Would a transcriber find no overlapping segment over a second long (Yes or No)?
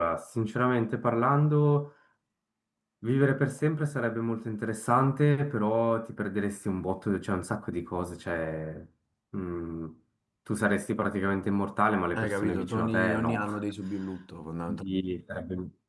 No